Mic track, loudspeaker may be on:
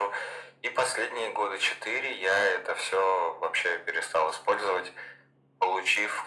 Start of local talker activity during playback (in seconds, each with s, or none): none